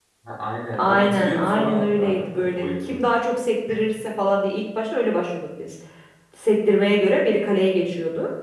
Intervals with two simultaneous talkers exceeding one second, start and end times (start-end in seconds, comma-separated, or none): 0.8-3.0